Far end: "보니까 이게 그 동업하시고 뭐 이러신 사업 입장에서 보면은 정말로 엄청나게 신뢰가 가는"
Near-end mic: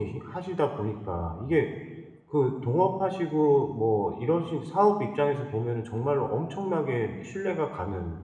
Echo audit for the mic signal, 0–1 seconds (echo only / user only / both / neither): echo only